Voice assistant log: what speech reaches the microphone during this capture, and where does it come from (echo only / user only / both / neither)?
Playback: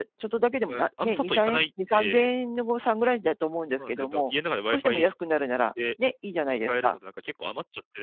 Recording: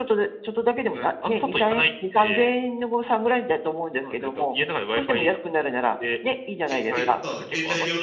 both